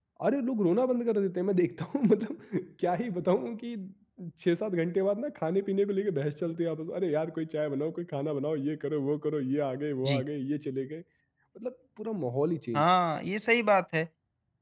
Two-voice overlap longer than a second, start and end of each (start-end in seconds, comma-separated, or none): none